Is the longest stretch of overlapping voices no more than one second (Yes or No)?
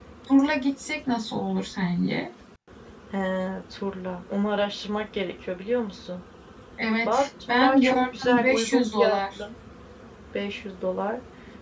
No